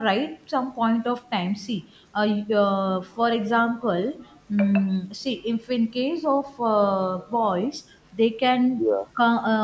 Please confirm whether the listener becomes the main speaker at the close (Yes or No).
No